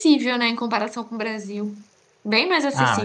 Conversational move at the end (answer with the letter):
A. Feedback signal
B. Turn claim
B